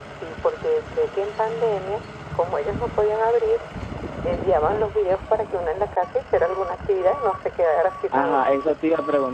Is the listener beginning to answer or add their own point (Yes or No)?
Yes